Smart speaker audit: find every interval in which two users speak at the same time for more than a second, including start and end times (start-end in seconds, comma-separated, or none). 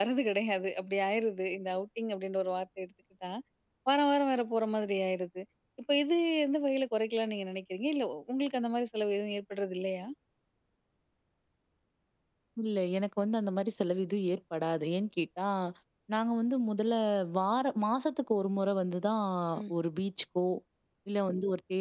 none